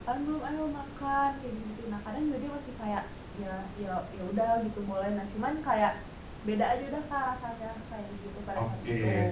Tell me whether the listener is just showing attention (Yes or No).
No